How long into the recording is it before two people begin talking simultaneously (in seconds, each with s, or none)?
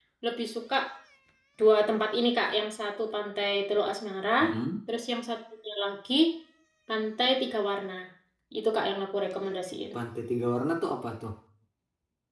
none